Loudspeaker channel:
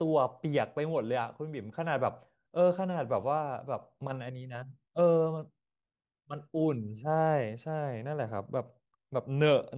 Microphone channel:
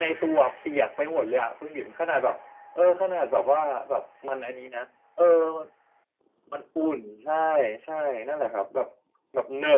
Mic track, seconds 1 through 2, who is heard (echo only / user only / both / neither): echo only